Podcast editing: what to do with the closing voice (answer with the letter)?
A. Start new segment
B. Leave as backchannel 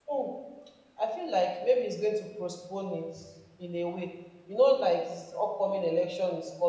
B